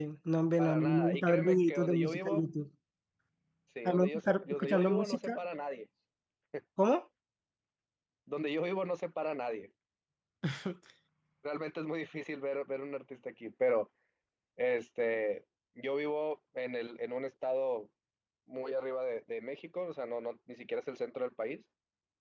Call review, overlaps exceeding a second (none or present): present